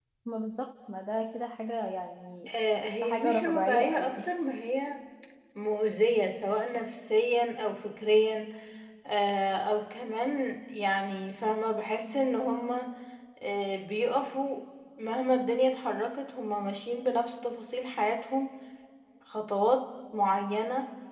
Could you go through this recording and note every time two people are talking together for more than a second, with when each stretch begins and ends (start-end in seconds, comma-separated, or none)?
2.8-4.2